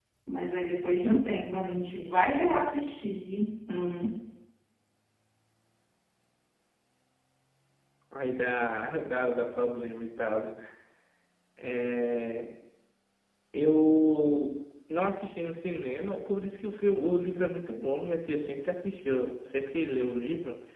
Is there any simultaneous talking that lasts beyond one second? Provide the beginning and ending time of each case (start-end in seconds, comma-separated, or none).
none